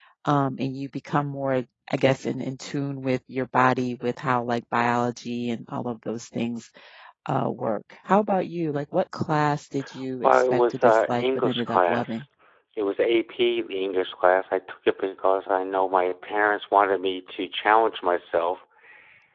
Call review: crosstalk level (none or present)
present